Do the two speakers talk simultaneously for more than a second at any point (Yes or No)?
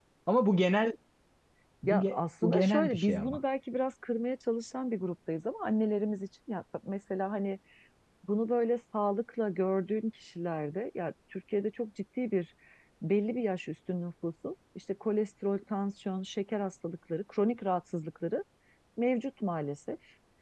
Yes